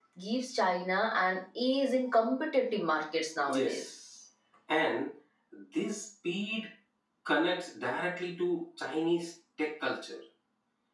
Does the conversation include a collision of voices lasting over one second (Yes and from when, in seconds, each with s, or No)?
No